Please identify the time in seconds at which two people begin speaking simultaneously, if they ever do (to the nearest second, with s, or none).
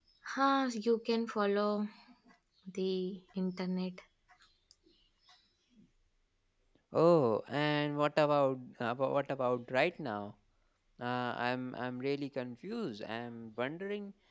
none